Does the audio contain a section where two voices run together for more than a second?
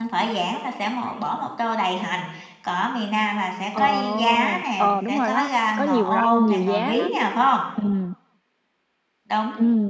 Yes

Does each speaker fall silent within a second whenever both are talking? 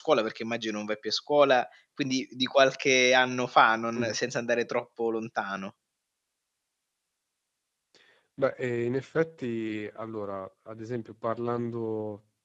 Yes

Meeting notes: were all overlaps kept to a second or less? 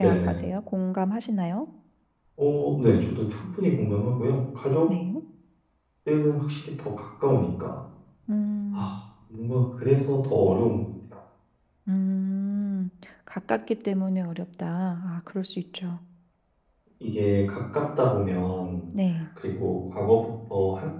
Yes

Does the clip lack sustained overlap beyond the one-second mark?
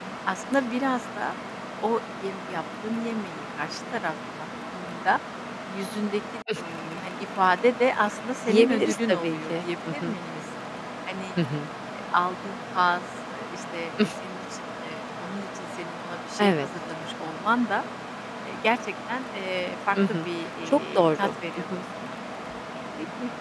No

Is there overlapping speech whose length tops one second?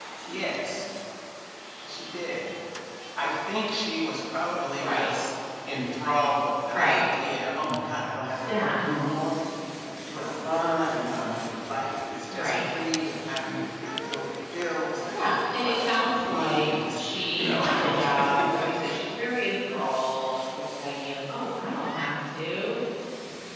Yes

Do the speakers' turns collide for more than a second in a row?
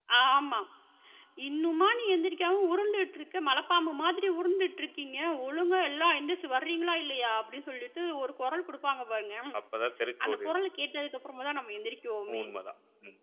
No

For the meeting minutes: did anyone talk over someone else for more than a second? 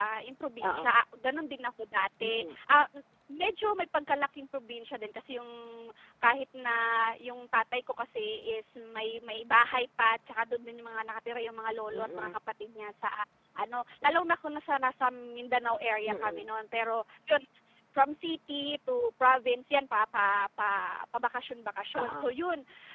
No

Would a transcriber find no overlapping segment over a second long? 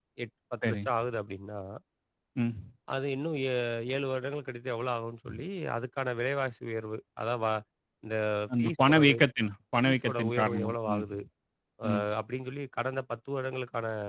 No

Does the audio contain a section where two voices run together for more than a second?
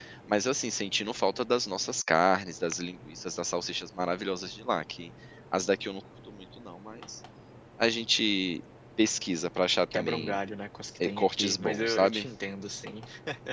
Yes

